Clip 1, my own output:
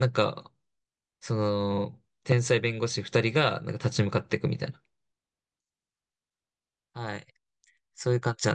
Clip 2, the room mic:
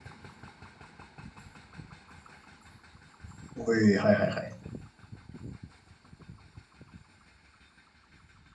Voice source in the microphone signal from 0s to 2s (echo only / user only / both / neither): neither